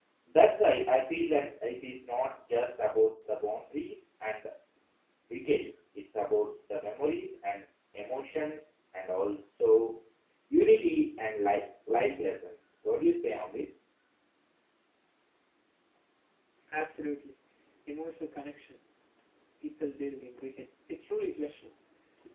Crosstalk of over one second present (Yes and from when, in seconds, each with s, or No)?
No